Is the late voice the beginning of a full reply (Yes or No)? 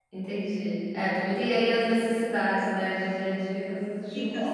Yes